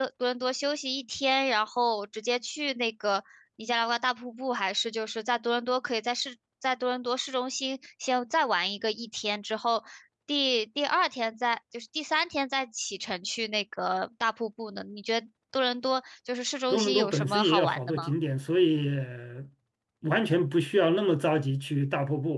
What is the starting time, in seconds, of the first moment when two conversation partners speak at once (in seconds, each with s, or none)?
16.7 s